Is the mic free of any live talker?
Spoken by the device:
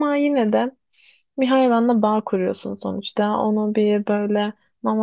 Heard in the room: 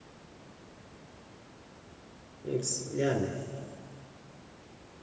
No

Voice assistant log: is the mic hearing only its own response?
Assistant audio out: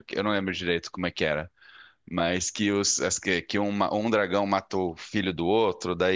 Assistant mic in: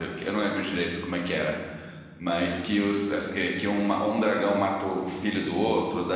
Yes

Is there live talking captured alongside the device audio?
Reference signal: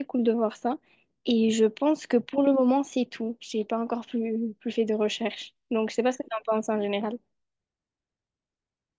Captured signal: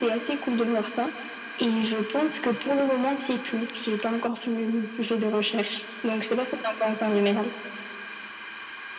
No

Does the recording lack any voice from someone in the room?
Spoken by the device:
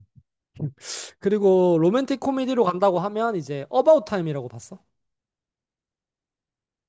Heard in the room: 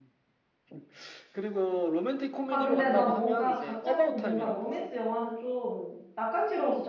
No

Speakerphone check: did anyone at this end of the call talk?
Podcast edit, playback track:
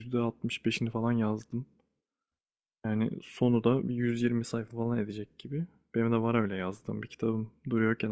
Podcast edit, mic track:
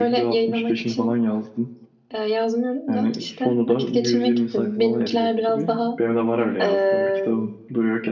Yes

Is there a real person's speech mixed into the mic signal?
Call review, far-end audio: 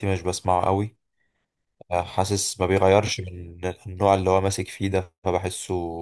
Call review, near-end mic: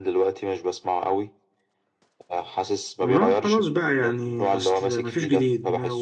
Yes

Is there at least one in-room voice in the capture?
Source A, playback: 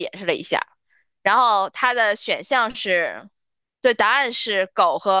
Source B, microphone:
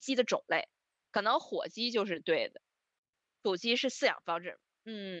Yes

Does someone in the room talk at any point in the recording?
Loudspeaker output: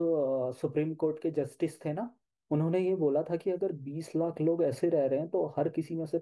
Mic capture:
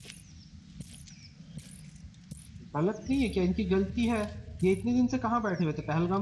Yes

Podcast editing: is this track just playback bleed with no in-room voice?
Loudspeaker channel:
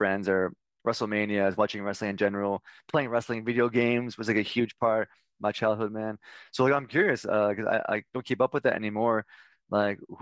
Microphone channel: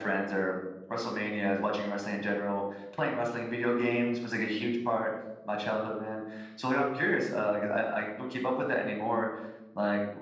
Yes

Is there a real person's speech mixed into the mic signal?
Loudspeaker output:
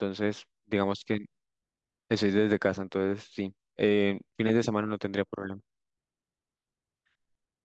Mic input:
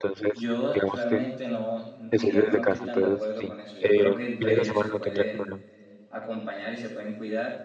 Yes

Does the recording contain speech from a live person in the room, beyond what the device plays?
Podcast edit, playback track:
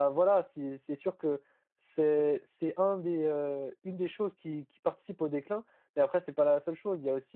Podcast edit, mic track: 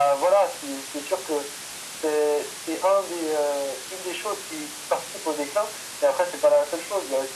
No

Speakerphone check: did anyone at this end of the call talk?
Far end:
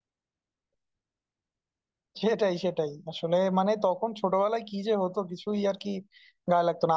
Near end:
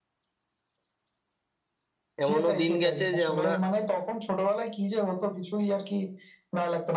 Yes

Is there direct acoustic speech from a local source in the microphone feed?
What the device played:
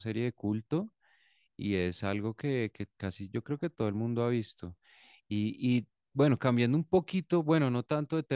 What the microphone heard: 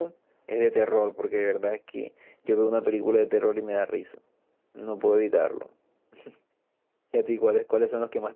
Yes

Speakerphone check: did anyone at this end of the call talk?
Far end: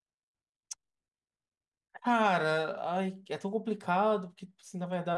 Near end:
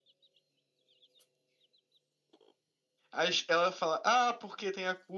Yes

